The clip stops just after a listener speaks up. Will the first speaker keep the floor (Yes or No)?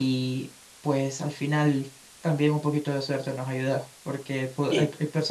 Yes